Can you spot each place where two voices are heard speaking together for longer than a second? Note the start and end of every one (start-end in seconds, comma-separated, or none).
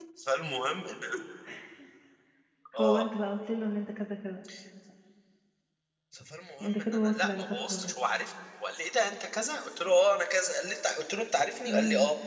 6.6-7.9